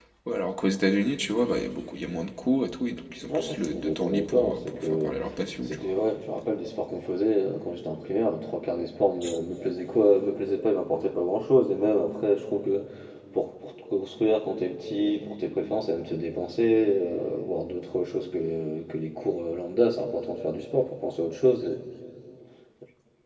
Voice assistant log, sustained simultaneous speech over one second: present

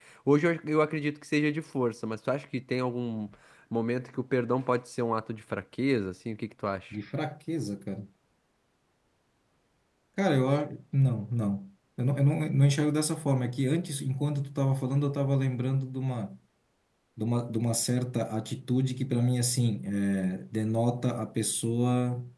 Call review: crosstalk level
none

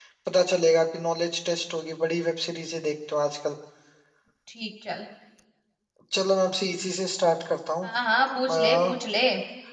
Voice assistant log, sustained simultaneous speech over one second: none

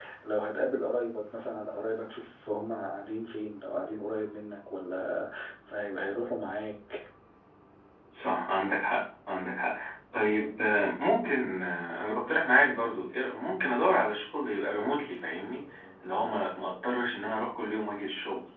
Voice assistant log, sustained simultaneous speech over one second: none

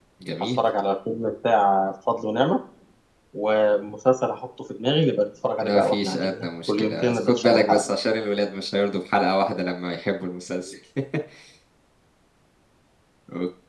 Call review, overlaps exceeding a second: present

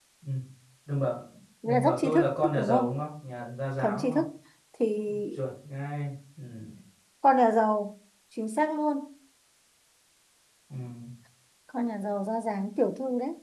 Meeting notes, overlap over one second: present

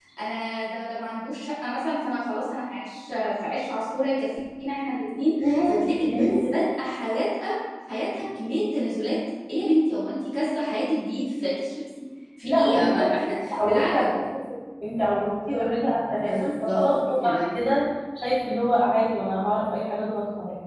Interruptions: present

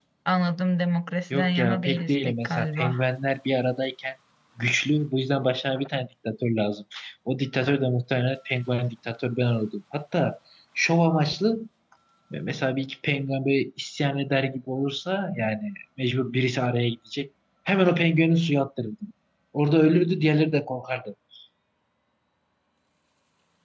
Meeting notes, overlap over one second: present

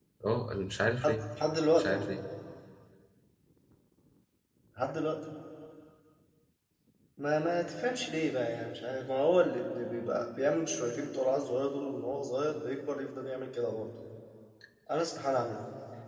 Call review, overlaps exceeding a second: none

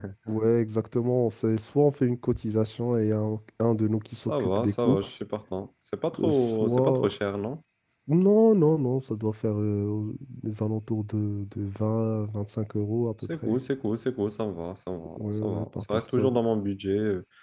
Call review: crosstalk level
present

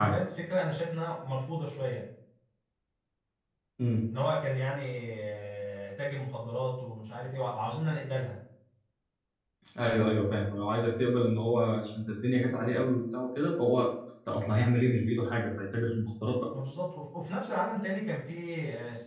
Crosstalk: none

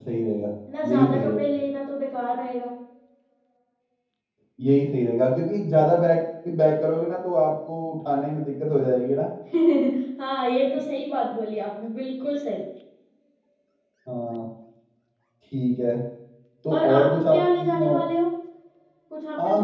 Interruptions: present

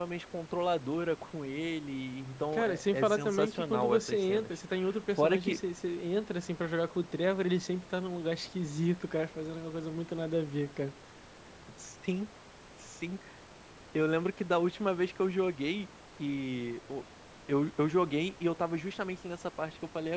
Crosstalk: present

